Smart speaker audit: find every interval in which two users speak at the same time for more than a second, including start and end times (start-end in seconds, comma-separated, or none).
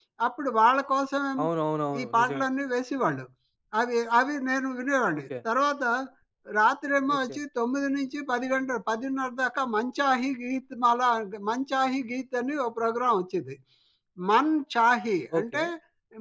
none